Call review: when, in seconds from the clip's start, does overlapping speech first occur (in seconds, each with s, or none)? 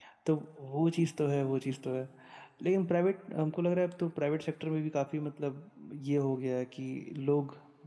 none